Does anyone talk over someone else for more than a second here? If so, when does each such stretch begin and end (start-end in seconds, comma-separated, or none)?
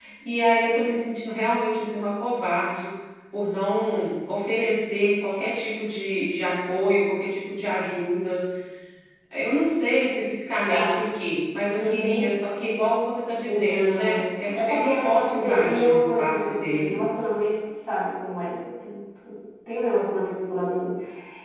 13.4-17.0